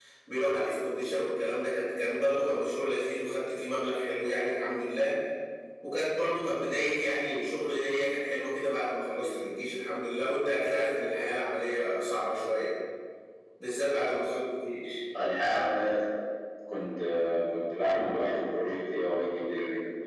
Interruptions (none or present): none